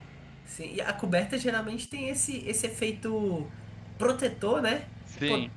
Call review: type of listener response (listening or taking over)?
listening